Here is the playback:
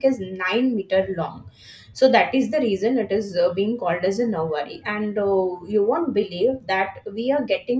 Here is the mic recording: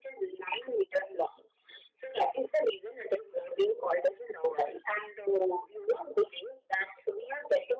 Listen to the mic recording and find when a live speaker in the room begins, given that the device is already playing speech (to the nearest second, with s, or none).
none